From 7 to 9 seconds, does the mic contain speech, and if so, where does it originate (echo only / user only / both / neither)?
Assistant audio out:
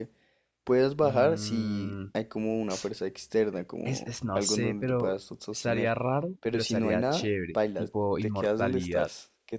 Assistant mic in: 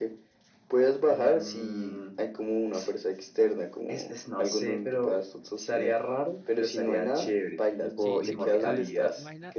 both